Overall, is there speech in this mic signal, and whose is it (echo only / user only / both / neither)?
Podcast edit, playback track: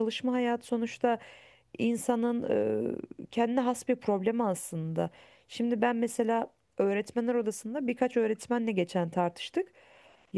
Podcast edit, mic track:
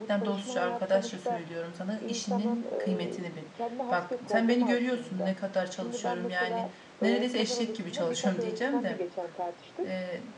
both